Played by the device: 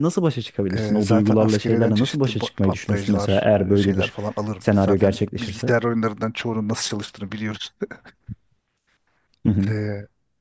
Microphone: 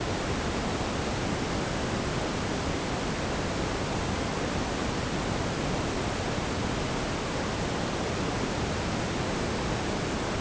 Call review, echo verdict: none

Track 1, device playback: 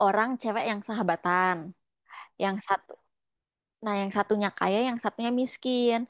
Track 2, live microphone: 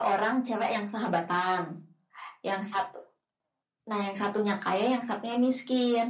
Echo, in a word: present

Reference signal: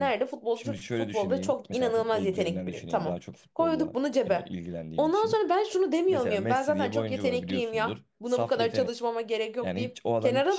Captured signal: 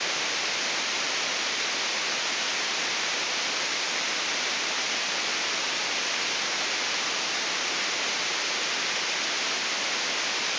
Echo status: none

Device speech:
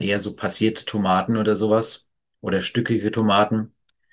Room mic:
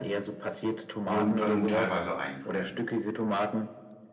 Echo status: present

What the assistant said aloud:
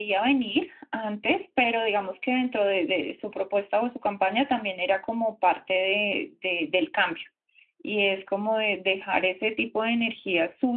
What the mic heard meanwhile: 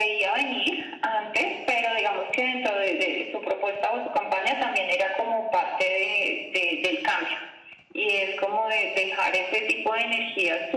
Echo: present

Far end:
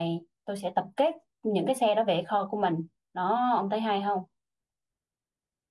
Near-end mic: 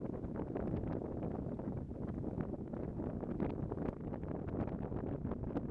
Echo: none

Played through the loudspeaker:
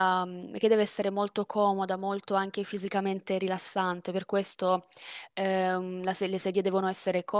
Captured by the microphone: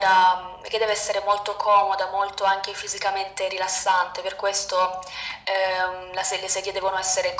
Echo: present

